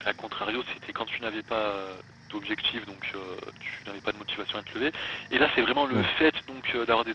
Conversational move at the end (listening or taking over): listening